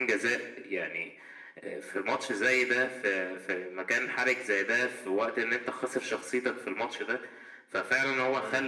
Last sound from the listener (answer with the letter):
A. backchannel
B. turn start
A